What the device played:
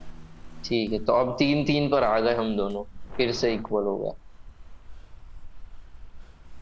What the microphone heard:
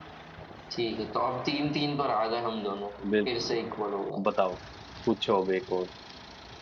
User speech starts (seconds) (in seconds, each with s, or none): 3.1 s